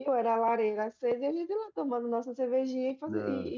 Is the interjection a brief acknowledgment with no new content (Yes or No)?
Yes